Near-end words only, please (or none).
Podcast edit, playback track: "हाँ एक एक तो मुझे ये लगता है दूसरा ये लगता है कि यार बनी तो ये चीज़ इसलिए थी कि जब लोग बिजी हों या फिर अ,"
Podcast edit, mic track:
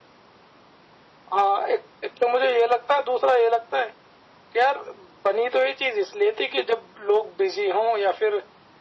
none